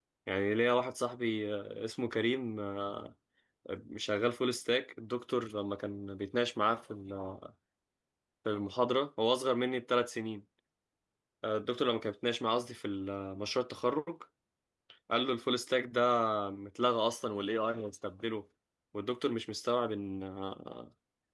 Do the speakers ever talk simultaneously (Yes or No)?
No